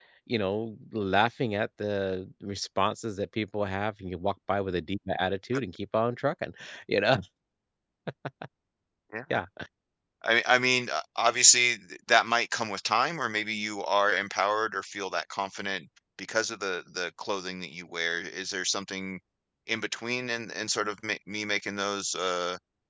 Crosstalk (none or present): none